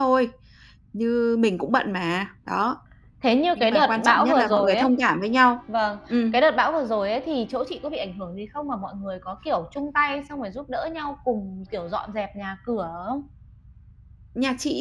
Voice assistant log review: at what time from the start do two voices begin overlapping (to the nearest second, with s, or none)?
4 s